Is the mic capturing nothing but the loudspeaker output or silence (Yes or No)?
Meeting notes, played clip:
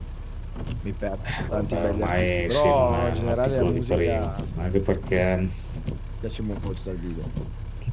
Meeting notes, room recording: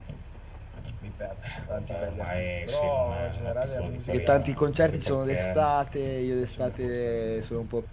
No